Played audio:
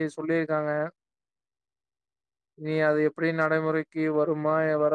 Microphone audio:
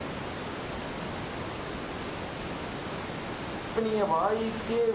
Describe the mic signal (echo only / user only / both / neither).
user only